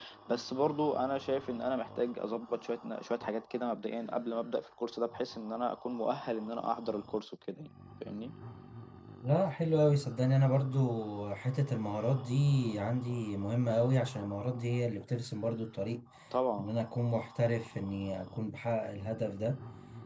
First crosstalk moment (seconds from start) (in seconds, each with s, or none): none